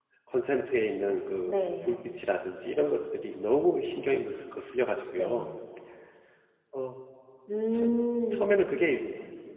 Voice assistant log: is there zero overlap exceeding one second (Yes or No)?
Yes